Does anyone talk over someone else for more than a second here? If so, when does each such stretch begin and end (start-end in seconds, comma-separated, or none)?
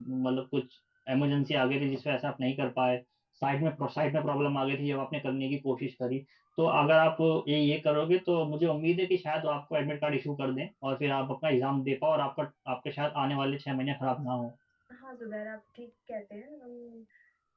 none